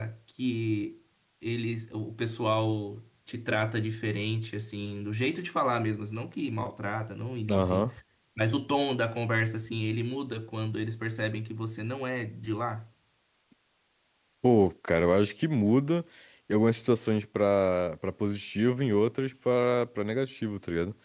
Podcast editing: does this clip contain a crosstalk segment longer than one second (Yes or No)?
No